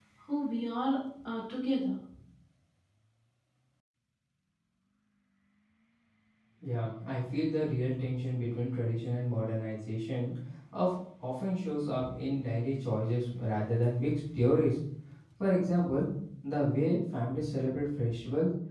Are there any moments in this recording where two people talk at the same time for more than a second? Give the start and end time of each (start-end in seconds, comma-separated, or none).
none